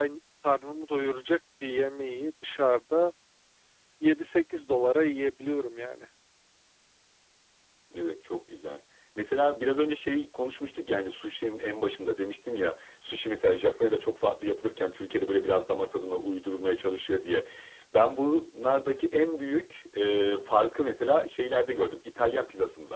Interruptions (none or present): none